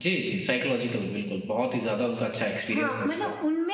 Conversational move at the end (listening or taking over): taking over